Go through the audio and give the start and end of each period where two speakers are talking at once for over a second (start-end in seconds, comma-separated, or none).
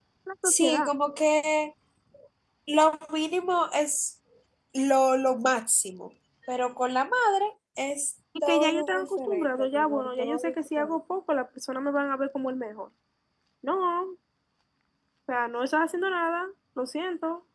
8.4-11.0